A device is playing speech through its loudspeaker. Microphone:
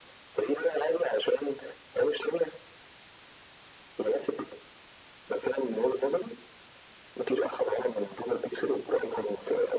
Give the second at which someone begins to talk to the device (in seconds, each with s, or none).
none